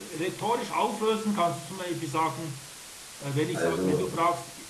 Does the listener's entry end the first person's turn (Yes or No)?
No